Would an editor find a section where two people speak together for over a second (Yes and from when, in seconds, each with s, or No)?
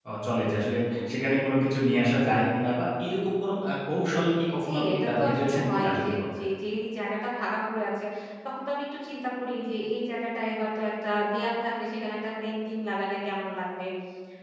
Yes, from 4.5 s